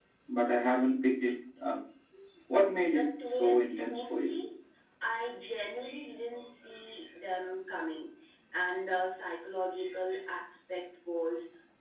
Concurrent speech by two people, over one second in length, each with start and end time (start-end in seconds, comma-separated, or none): 2.9-4.3